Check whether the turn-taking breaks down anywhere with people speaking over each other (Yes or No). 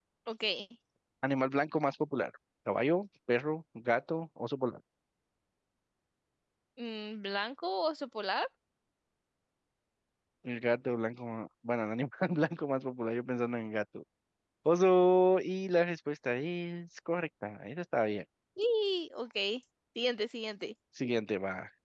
No